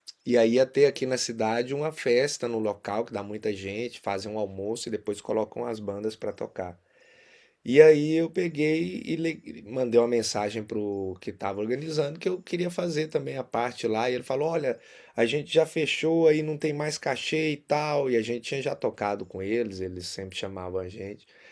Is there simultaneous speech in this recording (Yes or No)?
No